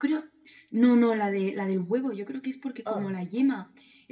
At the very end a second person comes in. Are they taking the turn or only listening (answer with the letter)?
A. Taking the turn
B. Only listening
B